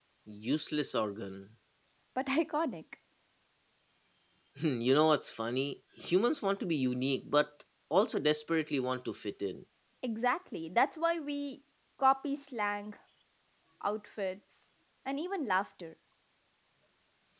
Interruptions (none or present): none